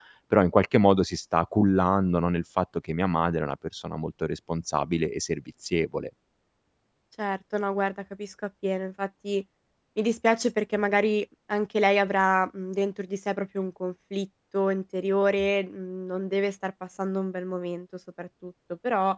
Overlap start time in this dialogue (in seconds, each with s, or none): none